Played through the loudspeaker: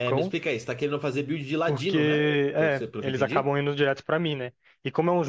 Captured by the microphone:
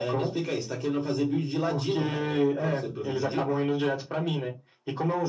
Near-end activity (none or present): none